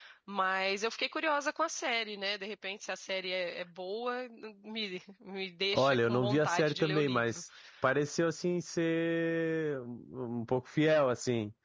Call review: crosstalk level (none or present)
present